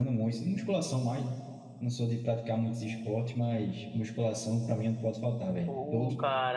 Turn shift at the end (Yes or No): Yes